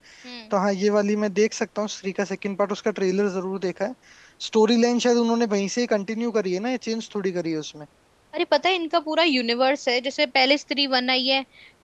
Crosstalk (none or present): none